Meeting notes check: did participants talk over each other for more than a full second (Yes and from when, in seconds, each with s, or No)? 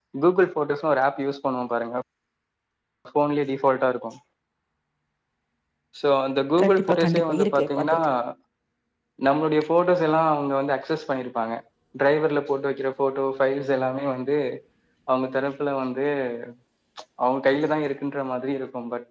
Yes, from 6.6 s